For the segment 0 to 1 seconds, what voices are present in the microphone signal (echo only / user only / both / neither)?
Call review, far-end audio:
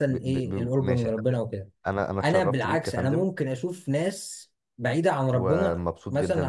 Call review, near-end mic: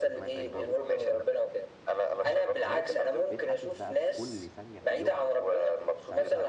both